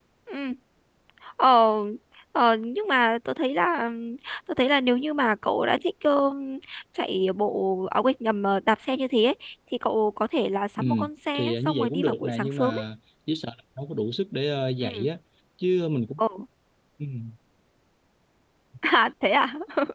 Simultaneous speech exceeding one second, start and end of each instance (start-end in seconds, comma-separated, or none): 11.4-12.8